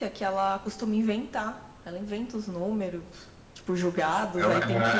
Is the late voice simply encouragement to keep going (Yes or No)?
No